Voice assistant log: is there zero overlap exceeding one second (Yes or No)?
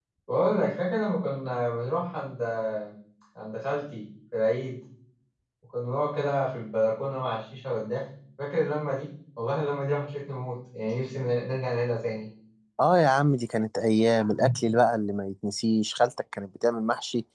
Yes